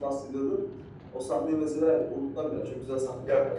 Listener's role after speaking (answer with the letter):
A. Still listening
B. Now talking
B